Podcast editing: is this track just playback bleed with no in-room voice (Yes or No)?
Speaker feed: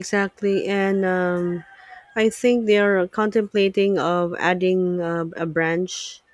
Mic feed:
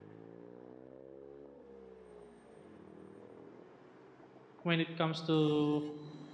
No